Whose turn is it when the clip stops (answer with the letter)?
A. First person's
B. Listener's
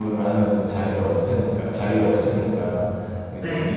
A